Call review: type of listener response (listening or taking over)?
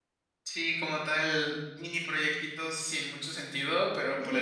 listening